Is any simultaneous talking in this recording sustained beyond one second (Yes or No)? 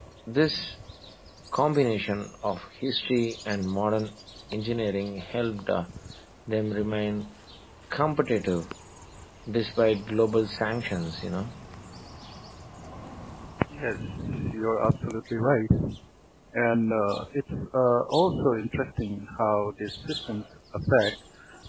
No